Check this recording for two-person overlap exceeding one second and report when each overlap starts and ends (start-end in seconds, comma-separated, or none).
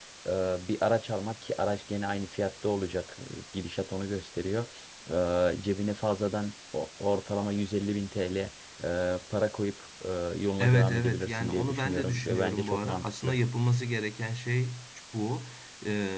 10.6-13.4